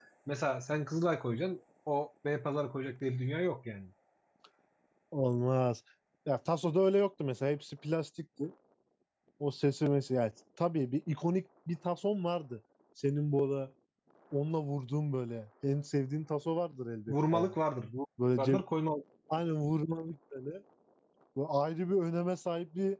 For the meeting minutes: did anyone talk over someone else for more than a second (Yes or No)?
No